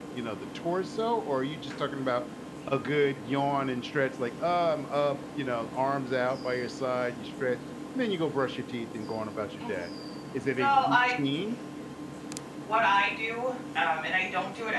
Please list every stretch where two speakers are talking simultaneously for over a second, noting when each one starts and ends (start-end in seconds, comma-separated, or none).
none